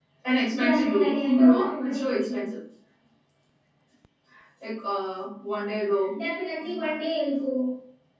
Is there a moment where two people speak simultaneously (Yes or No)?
Yes